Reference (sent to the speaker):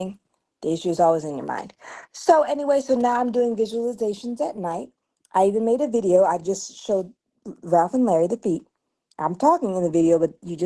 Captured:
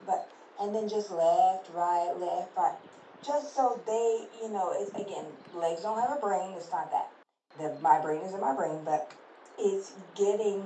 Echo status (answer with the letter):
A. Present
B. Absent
B